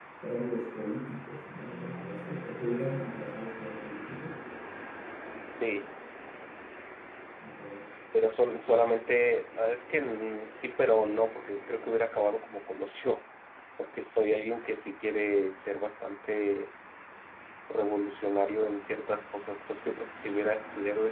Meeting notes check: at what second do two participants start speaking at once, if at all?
none

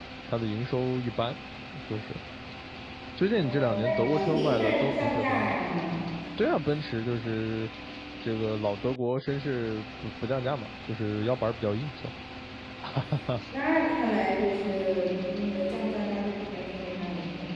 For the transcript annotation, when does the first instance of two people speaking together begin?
3.4 s

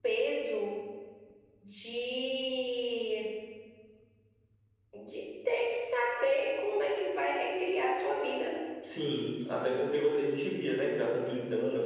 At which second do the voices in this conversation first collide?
none

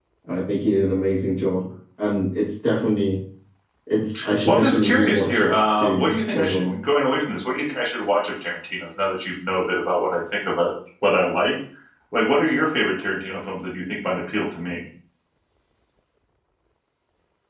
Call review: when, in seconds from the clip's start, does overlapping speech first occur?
4.5 s

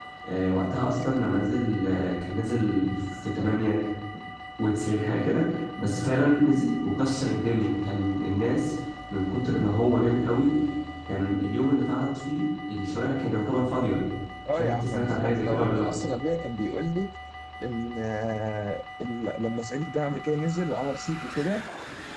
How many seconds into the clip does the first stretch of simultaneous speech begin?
14.5 s

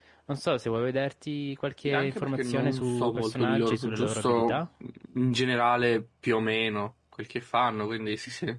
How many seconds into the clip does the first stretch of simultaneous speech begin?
1.9 s

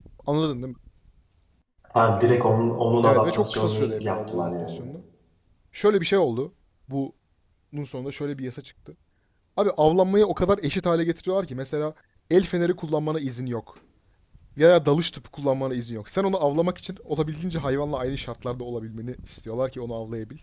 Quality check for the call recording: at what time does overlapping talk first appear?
3.0 s

